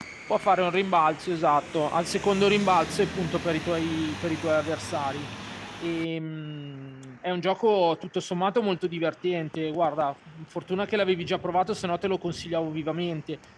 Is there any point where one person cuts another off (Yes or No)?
No